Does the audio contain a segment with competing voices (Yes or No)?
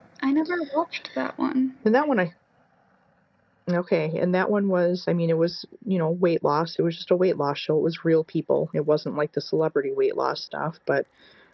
No